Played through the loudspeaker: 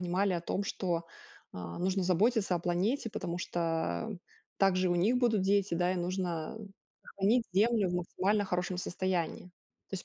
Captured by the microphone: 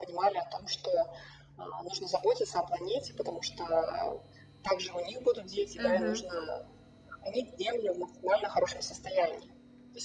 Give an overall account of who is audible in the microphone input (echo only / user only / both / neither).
both